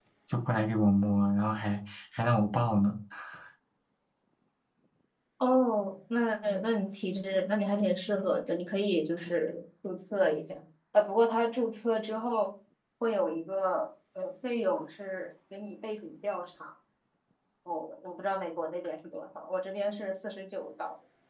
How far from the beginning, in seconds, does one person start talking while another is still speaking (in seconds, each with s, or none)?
none